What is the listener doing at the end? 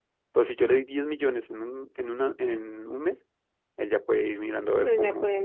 taking over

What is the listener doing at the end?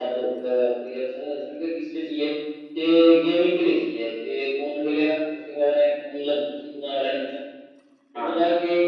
listening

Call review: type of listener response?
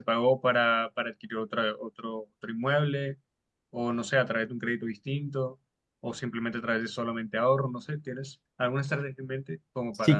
taking over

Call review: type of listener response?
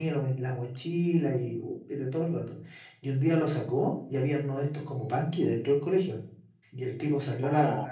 listening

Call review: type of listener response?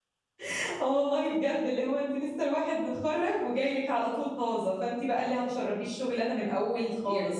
taking over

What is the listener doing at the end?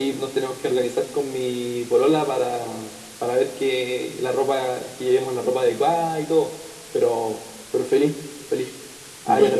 listening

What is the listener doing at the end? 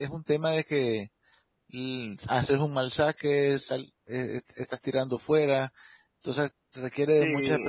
taking over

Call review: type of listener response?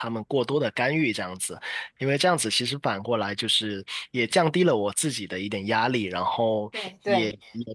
listening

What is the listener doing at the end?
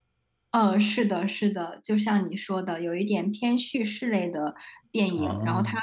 listening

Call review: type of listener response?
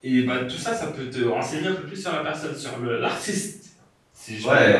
taking over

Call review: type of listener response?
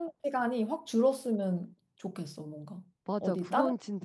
taking over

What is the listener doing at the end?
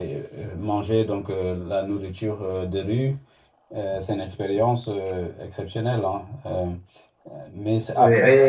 taking over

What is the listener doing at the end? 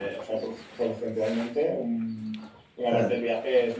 listening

